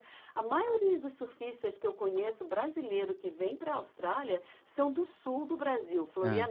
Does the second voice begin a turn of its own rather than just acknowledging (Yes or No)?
No